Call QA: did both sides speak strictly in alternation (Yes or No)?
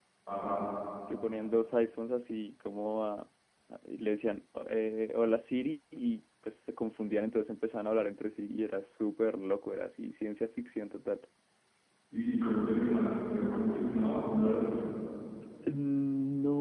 Yes